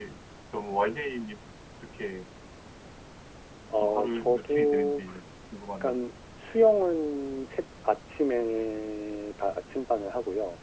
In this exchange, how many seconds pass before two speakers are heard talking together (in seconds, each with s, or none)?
3.8 s